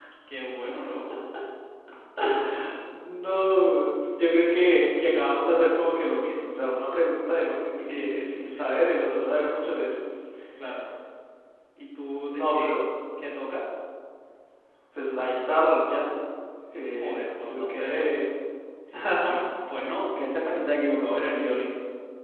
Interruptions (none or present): present